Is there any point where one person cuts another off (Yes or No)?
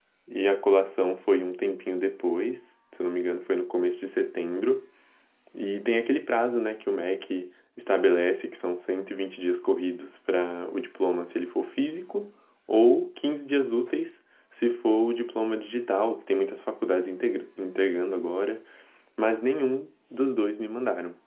No